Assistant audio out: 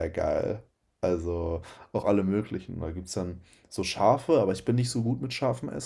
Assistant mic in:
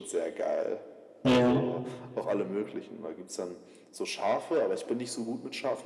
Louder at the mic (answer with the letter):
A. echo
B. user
B